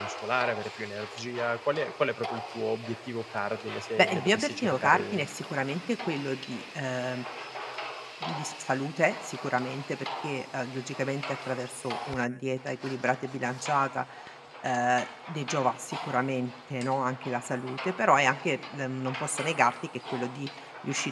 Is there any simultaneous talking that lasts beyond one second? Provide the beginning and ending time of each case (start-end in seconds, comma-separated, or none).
4.0-5.3